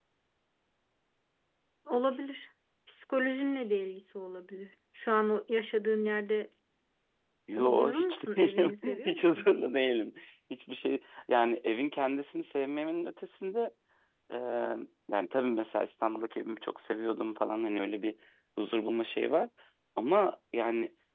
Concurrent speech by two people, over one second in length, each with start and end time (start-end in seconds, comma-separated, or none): 7.6-9.5